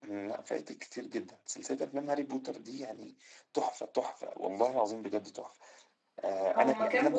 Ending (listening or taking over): taking over